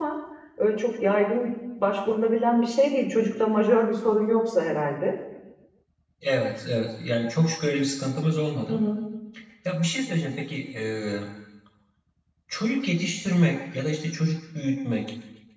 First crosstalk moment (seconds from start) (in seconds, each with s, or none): none